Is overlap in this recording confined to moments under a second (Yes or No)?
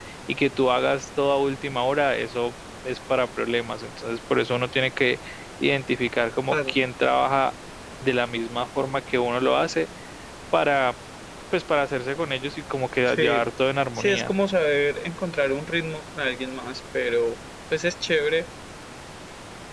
Yes